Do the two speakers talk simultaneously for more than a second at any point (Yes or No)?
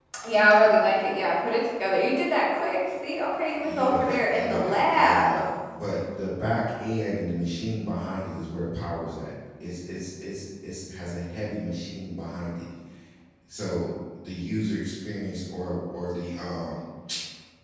Yes